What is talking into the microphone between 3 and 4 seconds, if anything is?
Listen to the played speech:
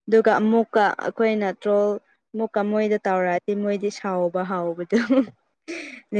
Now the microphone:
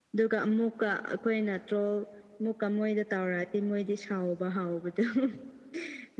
echo only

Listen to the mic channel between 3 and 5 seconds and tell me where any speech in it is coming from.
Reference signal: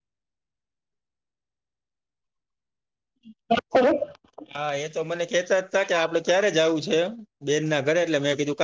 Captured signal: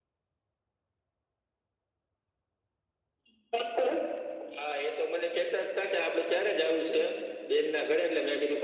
echo only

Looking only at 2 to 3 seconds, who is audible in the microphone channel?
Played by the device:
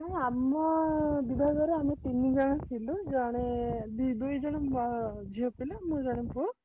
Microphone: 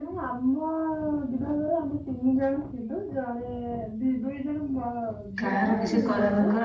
echo only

